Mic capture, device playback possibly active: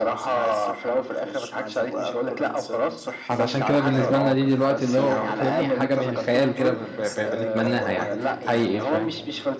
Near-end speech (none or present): present